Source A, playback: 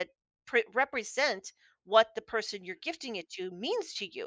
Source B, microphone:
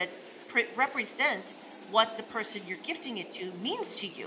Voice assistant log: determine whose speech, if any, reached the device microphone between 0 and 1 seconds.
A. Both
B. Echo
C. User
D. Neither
B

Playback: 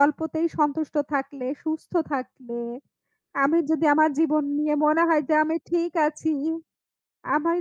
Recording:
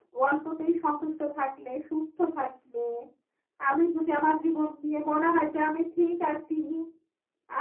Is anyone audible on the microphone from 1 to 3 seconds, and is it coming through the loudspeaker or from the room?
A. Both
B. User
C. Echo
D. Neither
C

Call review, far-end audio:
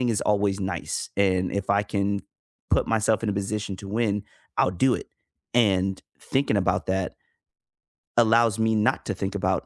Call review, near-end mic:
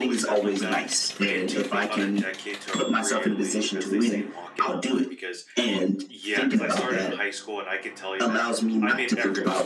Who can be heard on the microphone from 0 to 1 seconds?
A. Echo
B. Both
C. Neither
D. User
B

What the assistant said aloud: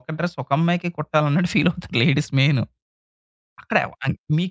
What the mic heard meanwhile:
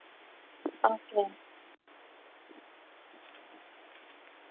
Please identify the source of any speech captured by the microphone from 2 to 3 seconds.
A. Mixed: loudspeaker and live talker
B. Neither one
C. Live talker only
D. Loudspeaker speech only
B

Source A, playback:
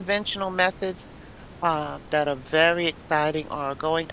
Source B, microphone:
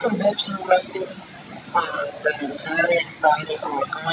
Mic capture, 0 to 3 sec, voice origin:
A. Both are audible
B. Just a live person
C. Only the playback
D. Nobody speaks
C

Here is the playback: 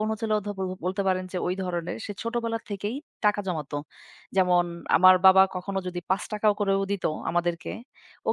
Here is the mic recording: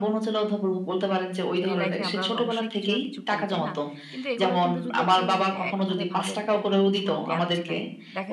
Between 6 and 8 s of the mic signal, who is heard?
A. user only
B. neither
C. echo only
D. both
D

